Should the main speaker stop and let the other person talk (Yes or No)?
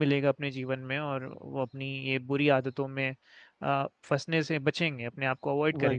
Yes